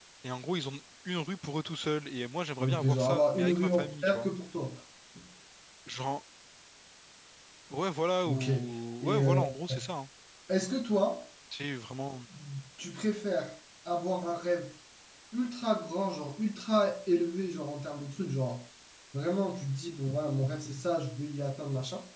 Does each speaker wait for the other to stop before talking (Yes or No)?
No